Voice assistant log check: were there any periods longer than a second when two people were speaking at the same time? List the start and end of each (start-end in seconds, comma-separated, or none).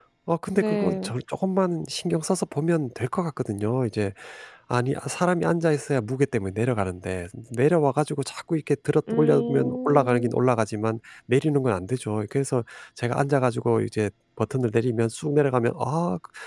9.1-10.3